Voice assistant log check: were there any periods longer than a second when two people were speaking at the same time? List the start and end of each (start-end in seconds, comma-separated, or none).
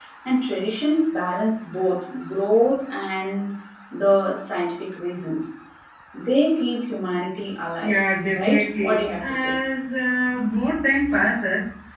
8.3-9.5